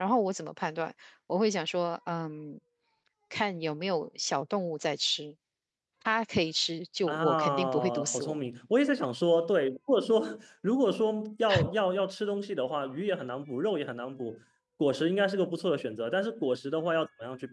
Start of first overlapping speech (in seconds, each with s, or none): 7.1 s